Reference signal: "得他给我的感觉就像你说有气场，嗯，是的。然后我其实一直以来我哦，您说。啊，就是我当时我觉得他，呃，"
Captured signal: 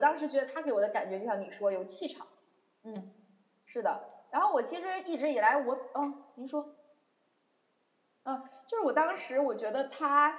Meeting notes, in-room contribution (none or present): none